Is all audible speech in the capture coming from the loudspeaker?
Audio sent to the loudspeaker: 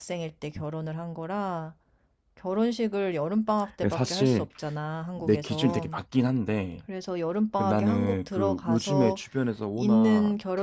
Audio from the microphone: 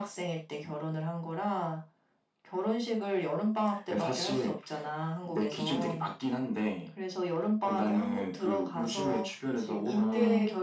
No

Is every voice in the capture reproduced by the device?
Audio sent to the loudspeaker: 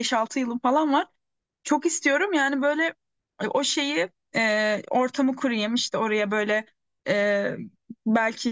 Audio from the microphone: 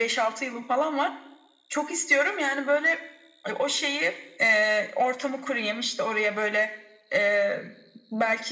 Yes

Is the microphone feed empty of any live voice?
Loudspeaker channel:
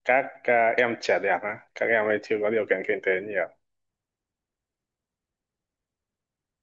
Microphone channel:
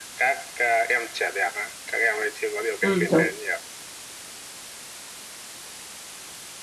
No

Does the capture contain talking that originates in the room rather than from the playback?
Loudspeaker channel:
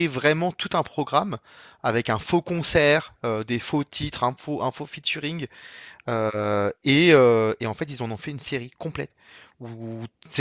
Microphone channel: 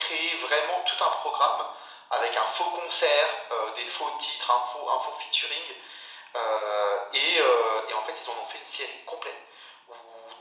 No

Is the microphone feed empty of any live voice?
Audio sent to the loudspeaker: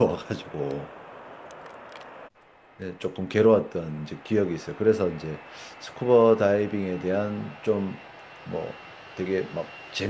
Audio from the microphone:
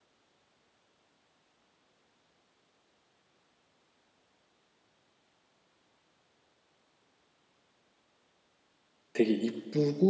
No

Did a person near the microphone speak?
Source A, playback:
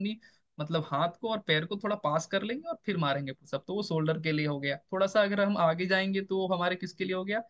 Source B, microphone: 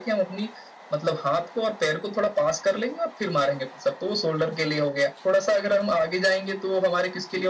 No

